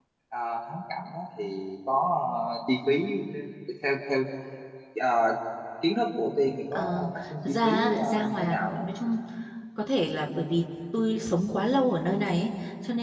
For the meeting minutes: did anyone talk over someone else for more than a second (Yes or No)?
Yes